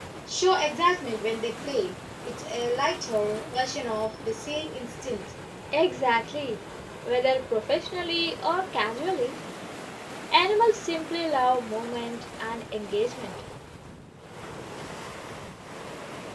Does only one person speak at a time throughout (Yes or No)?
Yes